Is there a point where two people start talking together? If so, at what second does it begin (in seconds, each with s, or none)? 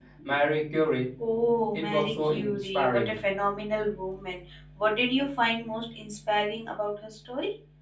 1.7 s